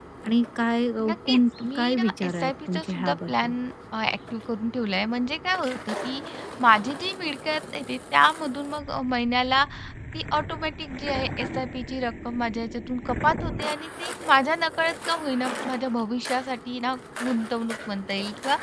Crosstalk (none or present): present